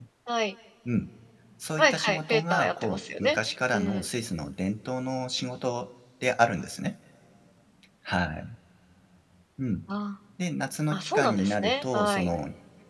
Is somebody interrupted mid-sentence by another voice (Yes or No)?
Yes